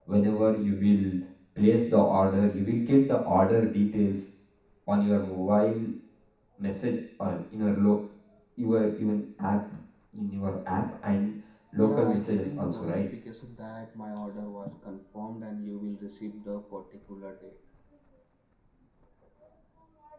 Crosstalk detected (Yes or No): Yes